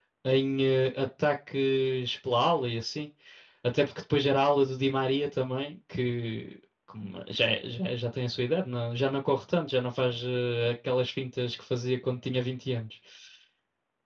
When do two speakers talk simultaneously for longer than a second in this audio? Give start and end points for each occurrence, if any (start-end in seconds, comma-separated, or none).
none